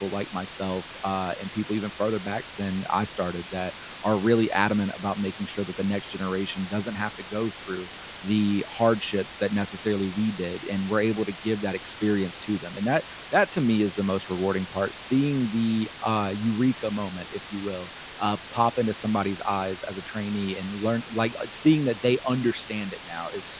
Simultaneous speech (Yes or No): No